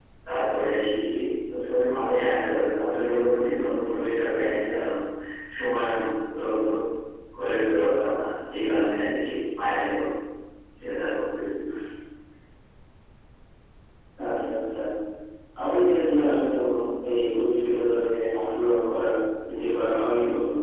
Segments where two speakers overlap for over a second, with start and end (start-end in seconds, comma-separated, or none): none